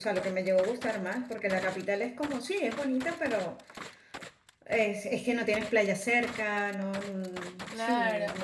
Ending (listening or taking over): taking over